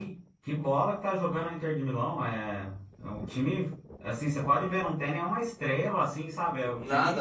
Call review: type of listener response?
taking over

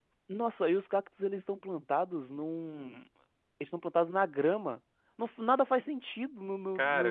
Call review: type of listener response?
taking over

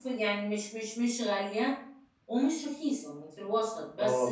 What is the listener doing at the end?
taking over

